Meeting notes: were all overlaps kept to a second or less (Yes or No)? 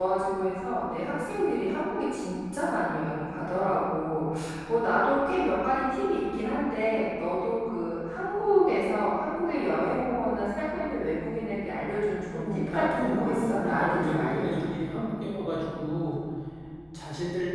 No